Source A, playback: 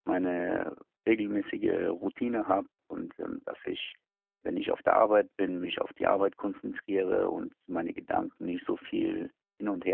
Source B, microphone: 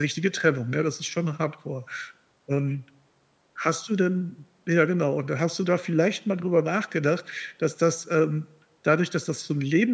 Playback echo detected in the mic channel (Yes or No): No